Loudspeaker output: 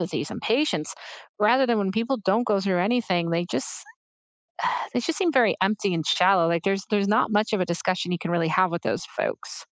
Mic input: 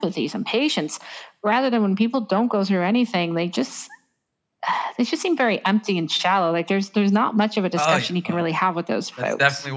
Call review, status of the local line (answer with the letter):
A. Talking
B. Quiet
A